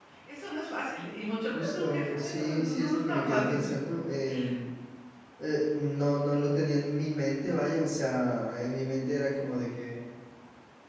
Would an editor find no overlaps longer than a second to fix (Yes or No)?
No